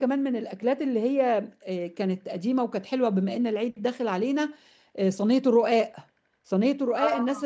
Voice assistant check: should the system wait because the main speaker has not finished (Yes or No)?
Yes